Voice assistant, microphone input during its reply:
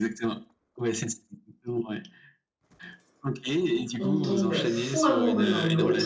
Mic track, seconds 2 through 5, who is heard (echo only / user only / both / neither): both